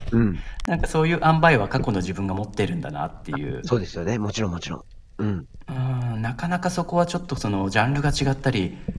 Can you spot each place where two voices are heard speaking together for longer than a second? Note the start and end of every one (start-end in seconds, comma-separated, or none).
none